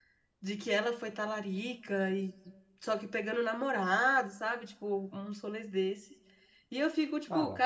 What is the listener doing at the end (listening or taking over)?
listening